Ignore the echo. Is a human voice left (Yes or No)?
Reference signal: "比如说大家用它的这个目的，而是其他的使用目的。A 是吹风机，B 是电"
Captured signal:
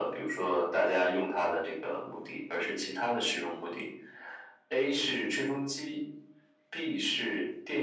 No